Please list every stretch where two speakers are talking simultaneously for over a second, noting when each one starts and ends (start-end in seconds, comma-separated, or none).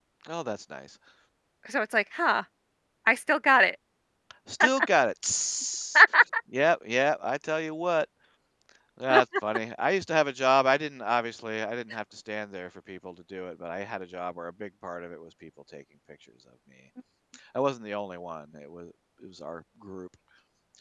none